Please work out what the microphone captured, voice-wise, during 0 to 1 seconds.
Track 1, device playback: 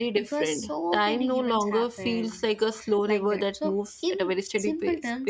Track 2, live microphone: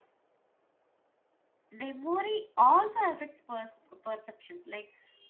neither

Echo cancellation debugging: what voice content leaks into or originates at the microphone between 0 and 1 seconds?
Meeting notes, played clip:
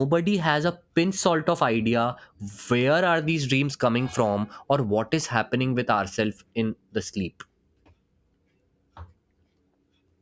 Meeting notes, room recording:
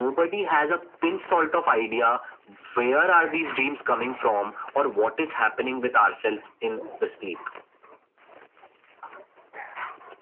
echo only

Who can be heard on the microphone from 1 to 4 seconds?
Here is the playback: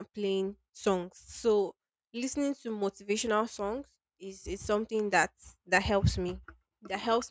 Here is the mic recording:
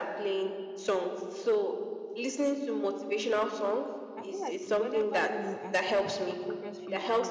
echo only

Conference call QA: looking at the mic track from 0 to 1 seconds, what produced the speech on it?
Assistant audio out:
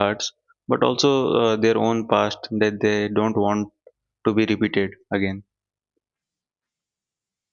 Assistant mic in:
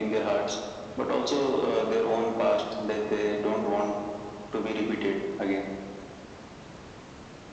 echo only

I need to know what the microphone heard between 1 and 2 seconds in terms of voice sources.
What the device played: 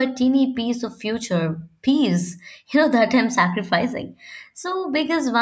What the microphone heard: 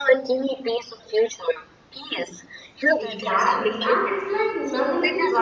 echo only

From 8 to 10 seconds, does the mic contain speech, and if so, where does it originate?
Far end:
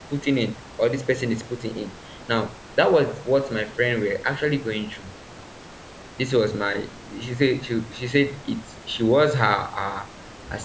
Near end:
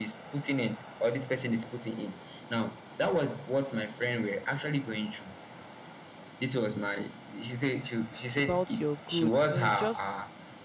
both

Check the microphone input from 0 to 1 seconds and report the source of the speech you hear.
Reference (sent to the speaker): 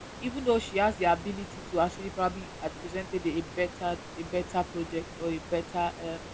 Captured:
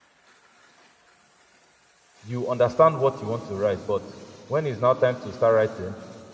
neither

